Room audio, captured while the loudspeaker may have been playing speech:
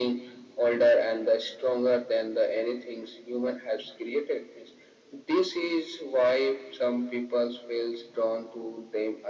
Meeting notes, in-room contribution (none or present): none